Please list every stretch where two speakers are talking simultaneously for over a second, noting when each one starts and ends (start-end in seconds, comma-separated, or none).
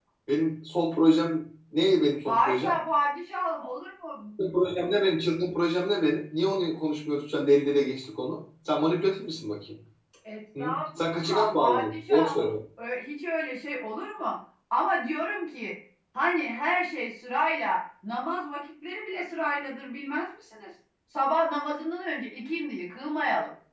10.6-12.5